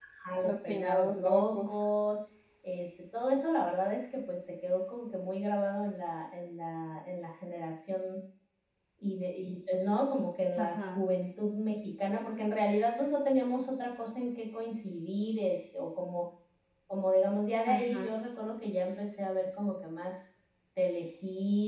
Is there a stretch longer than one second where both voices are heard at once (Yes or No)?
Yes